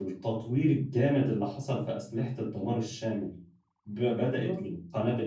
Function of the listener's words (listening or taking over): listening